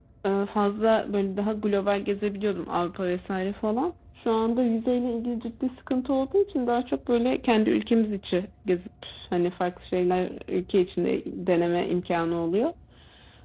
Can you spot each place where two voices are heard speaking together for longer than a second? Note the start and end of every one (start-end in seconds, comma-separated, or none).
none